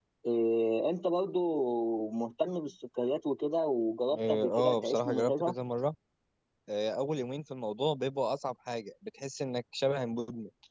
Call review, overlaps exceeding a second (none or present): present